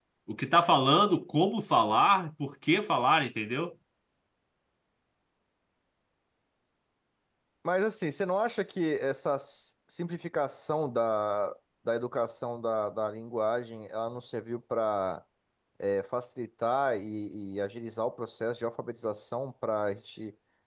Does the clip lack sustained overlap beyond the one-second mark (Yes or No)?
Yes